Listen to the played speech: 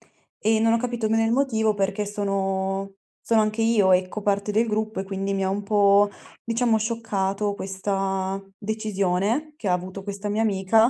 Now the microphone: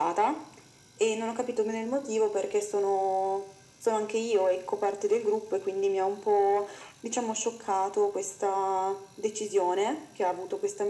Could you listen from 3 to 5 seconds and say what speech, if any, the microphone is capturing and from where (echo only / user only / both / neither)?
echo only